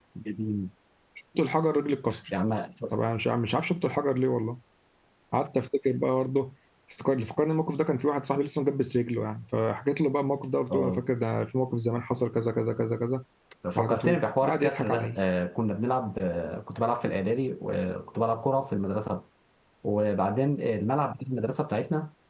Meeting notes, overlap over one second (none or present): present